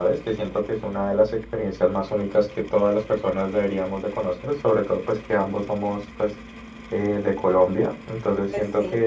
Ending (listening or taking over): listening